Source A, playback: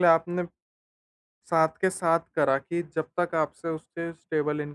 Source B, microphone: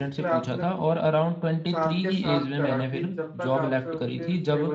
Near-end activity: present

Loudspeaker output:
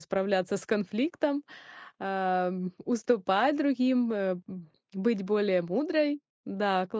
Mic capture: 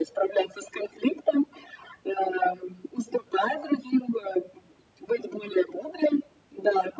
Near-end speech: none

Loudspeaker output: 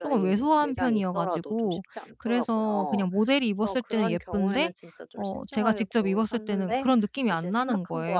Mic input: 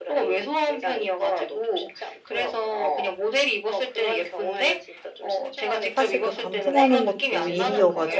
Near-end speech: present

